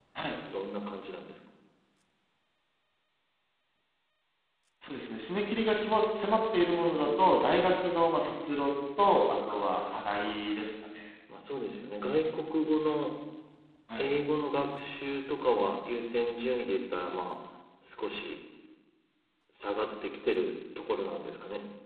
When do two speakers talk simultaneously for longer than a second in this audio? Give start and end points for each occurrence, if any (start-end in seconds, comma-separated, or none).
9.0-10.4